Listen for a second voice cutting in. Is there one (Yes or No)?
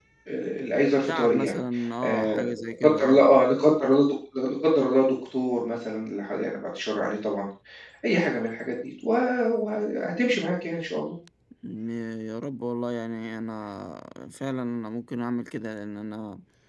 Yes